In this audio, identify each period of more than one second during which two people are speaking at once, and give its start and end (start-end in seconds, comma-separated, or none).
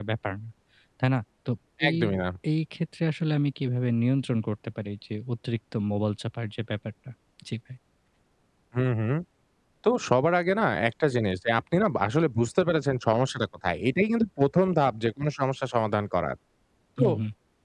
none